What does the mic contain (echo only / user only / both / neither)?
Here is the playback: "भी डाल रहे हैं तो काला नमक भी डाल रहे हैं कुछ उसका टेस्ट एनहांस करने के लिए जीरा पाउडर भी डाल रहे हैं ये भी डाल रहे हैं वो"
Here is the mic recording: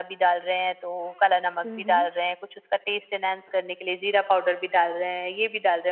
both